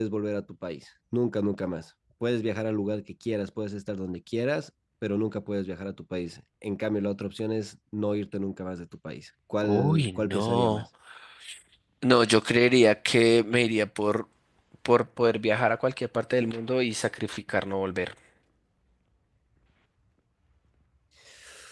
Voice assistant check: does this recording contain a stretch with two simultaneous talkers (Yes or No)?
Yes